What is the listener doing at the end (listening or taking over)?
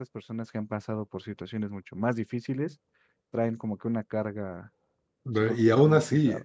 taking over